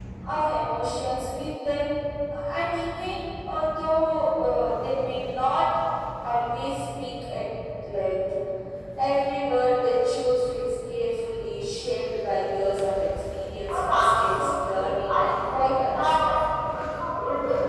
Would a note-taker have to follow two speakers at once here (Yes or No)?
Yes